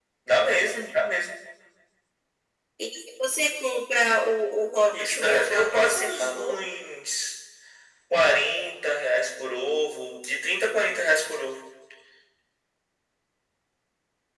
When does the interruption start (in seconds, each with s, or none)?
4.9 s